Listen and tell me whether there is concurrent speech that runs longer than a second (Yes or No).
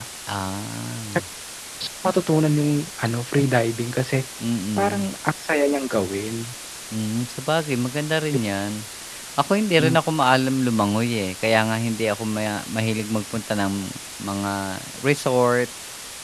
No